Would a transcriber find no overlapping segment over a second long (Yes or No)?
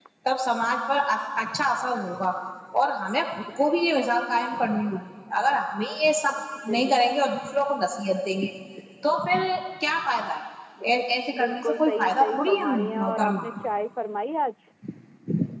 No